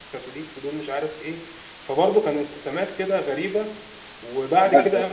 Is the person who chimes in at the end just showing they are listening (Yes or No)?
Yes